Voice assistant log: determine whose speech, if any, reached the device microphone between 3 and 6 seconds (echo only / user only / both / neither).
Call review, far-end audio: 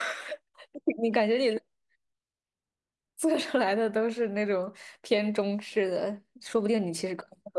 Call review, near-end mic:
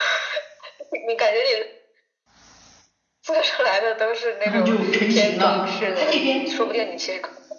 both